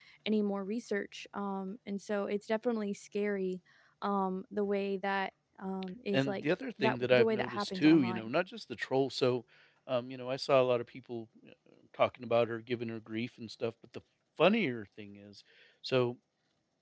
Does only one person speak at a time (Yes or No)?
No